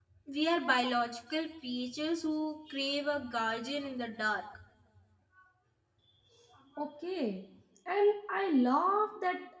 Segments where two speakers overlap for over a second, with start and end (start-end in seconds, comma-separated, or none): none